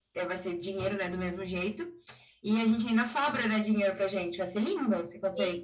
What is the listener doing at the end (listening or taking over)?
taking over